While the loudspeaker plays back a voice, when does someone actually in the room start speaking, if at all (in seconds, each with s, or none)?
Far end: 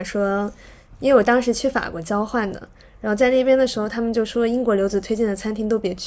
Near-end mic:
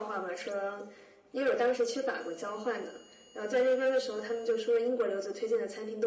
none